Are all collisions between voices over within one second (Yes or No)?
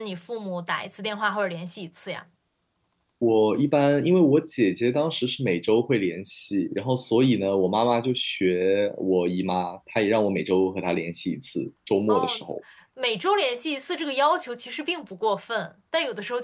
Yes